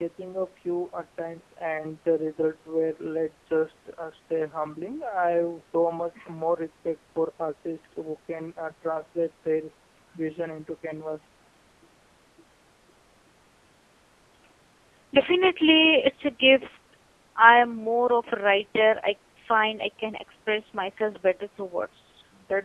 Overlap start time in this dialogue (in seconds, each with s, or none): none